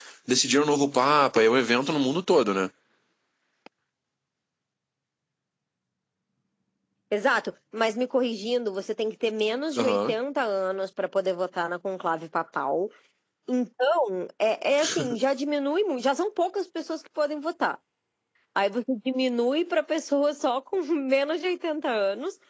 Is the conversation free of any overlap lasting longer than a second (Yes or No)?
Yes